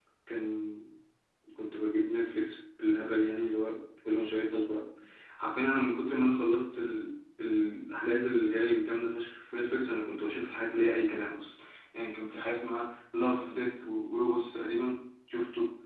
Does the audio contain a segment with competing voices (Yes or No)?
No